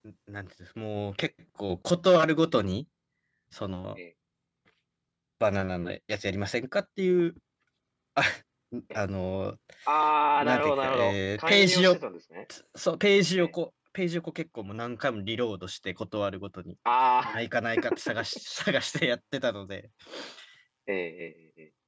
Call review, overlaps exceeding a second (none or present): present